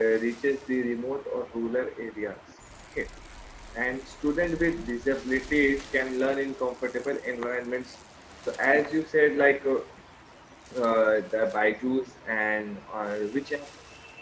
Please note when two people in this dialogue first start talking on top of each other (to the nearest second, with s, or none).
none